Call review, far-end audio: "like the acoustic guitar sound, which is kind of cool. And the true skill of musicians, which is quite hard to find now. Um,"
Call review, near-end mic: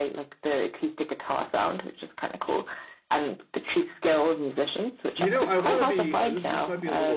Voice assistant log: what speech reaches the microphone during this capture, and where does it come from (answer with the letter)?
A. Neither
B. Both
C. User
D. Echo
B